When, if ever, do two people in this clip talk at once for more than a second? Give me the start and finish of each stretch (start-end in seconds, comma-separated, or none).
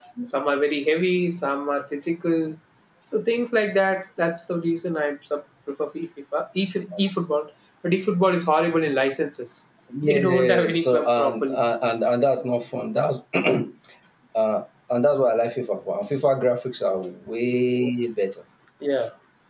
10.0-11.6